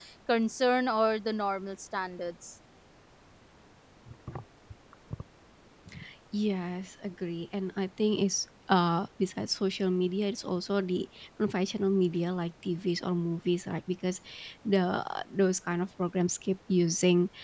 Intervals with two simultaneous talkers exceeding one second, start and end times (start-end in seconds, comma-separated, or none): none